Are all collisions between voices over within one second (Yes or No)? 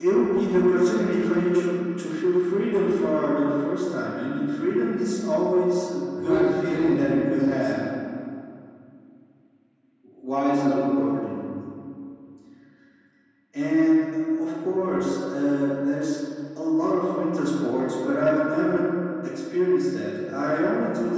No